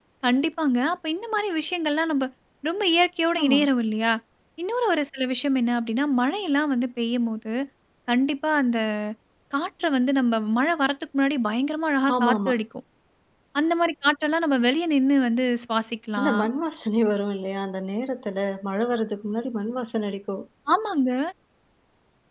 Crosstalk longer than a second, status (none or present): none